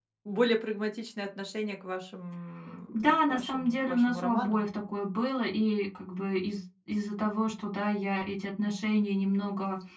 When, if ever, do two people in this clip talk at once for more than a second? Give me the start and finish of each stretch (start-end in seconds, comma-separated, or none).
2.9-4.6